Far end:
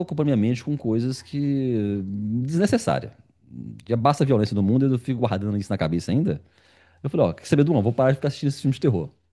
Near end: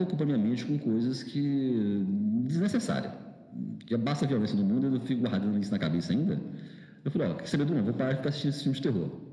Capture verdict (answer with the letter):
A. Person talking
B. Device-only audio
B